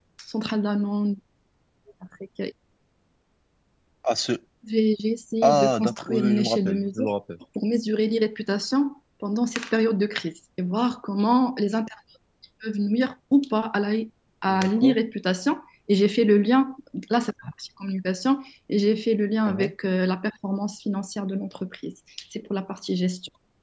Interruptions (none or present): present